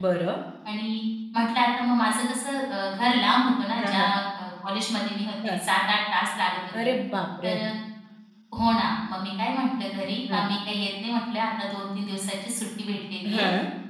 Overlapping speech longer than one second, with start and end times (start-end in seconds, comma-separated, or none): none